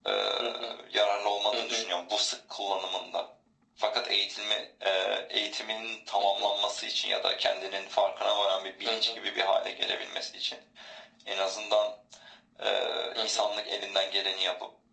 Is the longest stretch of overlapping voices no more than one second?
Yes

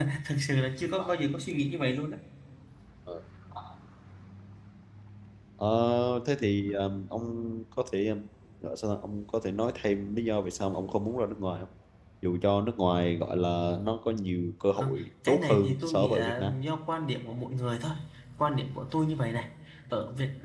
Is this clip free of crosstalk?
No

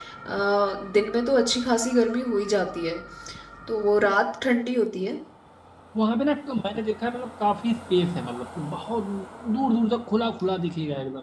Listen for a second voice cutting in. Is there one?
No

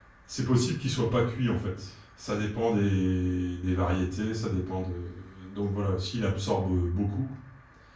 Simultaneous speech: No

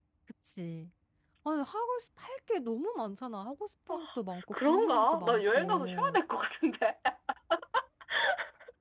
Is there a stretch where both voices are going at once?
Yes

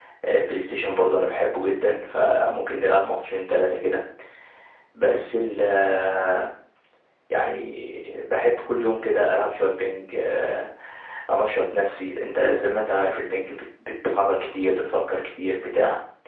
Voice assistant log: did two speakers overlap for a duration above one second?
No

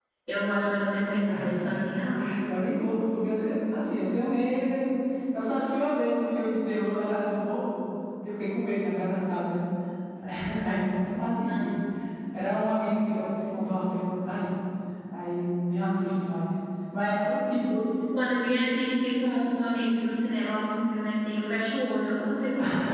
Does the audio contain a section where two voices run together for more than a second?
No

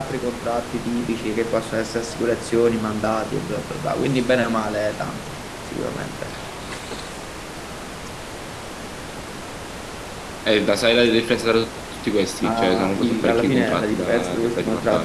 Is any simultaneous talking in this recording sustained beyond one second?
Yes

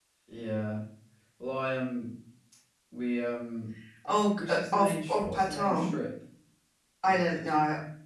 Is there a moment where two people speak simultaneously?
Yes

